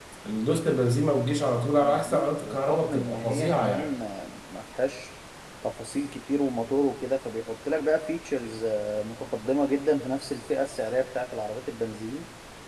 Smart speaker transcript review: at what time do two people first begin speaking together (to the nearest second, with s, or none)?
2 s